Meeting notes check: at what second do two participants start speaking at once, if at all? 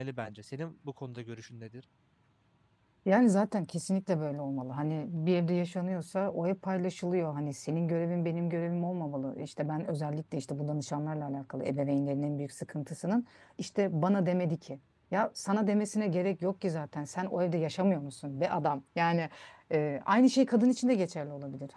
none

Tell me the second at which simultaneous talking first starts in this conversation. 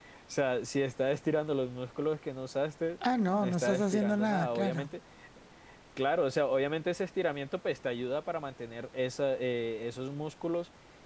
3 s

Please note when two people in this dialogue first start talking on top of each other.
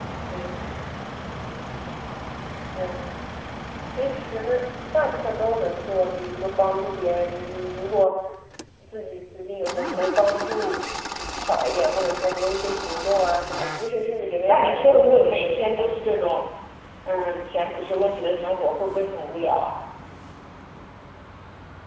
14 s

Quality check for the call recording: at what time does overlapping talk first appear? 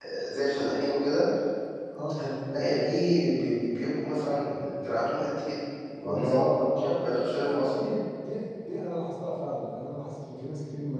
6 s

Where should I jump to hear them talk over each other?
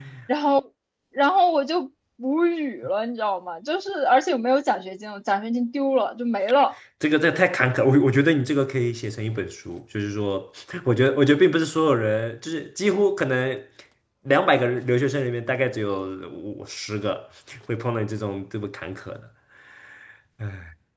none

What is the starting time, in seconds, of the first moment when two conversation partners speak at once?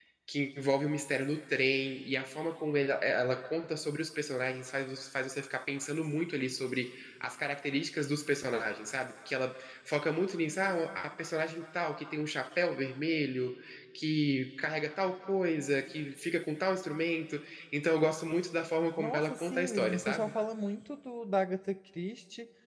19 s

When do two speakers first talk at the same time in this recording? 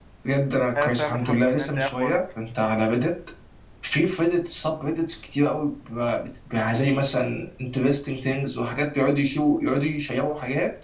1 s

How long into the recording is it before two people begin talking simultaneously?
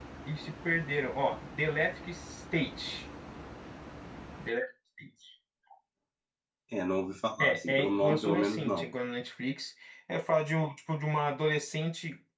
7 s

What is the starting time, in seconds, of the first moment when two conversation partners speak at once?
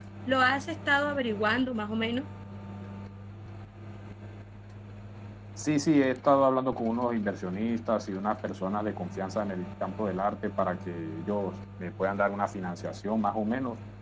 none

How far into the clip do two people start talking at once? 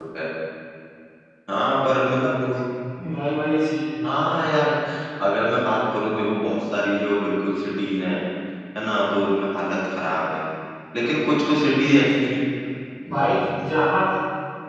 none

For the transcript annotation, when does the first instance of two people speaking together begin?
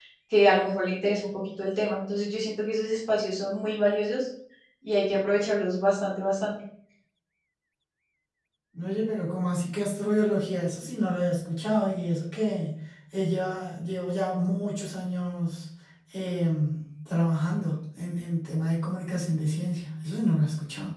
none

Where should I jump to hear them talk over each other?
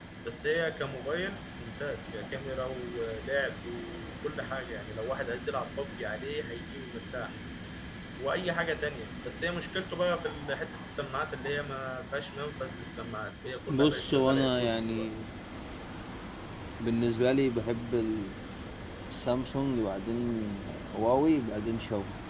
14 s

